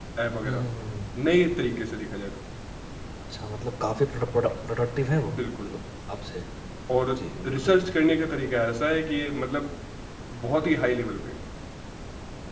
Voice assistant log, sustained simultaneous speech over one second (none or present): none